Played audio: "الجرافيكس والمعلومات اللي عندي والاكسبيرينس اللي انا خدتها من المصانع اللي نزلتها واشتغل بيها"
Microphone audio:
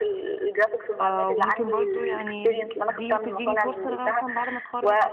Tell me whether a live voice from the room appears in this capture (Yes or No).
Yes